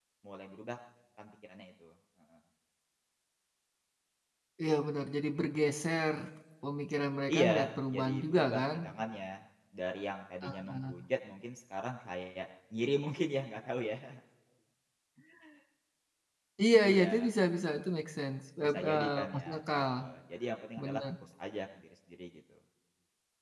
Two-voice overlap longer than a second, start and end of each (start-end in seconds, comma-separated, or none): 7.3-8.8, 18.6-19.9